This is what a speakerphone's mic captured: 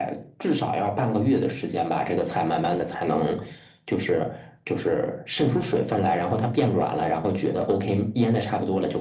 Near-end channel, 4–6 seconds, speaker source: echo only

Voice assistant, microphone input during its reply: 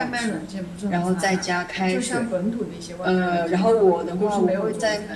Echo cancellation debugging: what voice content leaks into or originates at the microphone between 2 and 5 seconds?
both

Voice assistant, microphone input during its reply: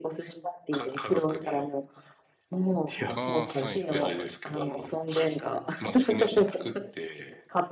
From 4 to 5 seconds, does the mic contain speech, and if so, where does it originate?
both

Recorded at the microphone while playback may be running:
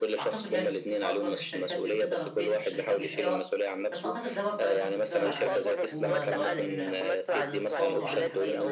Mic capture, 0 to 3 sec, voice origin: both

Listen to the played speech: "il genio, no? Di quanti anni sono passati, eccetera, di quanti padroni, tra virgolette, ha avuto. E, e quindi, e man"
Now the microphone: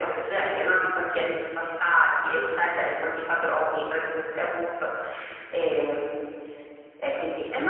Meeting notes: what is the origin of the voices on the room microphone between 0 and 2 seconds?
echo only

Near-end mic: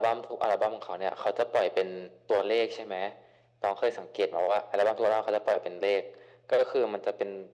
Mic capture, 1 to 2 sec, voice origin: echo only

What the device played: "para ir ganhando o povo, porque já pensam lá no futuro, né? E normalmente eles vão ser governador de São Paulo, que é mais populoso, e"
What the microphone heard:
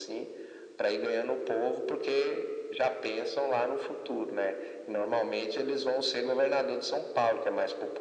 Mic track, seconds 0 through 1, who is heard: echo only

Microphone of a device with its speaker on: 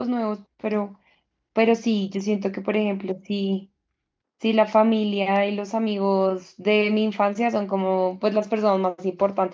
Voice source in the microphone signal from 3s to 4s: user only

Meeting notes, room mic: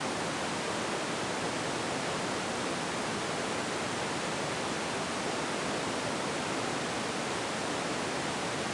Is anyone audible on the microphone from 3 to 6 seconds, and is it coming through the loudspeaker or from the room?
neither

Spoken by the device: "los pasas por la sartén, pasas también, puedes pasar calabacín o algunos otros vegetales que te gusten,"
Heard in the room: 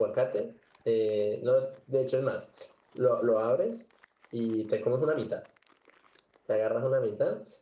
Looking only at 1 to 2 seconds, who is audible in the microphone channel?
user only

